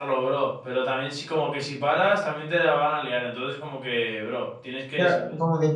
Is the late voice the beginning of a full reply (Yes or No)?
Yes